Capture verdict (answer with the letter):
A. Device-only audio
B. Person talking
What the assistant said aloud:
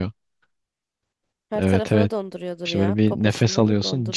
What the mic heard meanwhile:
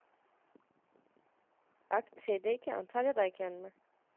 B